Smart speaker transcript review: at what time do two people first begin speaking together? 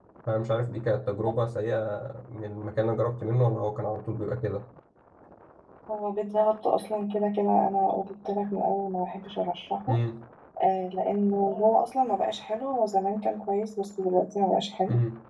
none

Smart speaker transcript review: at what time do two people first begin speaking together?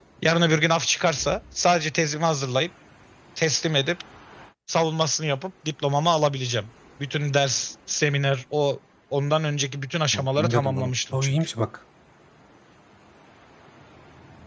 10.1 s

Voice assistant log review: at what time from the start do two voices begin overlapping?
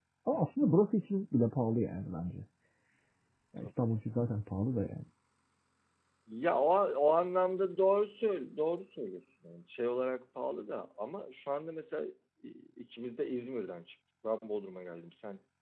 none

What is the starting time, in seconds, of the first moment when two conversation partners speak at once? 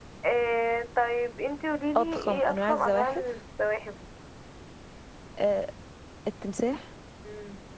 1.9 s

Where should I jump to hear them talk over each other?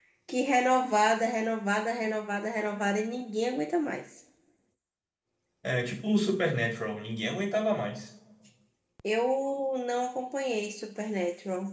none

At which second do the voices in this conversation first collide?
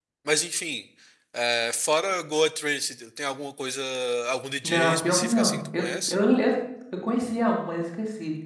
4.6 s

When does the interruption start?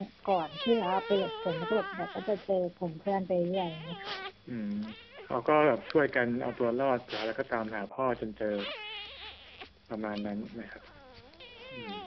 none

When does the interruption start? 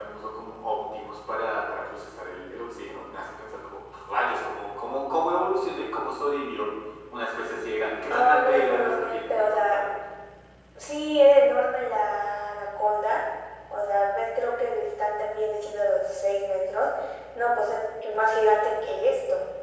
8.1 s

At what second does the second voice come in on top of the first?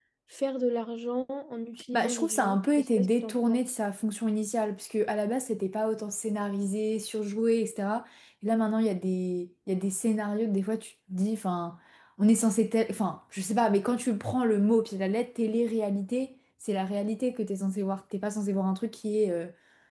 1.9 s

